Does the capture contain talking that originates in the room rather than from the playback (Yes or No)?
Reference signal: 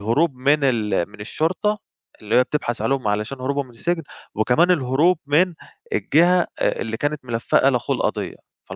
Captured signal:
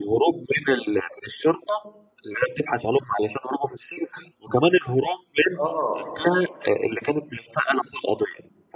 Yes